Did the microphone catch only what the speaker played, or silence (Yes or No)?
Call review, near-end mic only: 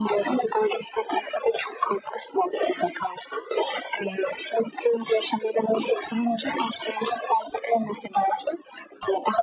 Yes